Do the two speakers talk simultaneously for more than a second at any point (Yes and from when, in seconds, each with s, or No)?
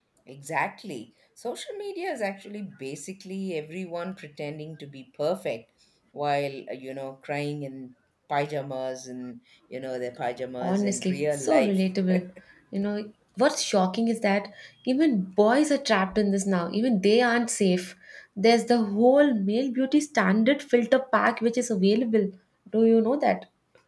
Yes, from 10.6 s